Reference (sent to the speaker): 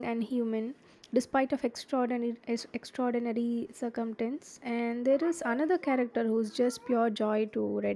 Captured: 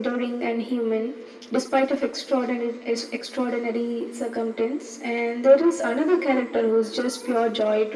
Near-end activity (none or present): none